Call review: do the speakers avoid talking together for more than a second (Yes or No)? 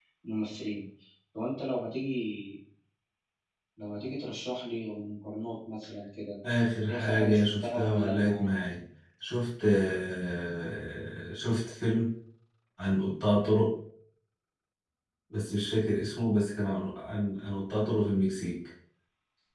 No